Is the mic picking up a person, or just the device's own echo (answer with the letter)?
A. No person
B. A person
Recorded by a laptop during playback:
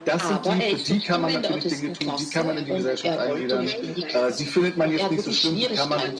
B